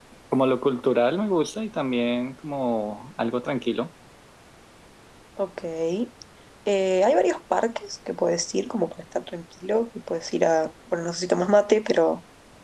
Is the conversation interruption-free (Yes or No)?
Yes